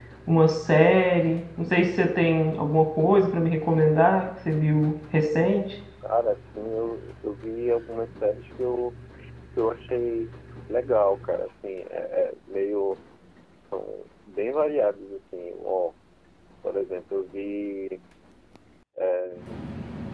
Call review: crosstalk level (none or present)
none